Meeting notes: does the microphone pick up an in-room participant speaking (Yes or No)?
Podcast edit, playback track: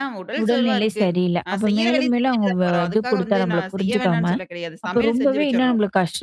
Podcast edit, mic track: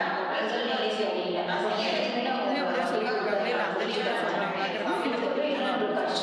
Yes